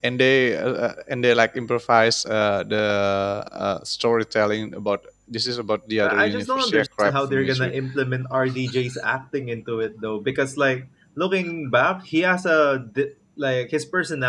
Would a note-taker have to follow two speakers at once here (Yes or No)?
Yes